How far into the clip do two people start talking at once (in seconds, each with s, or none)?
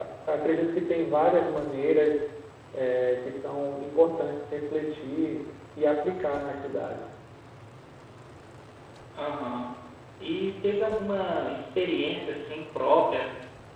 none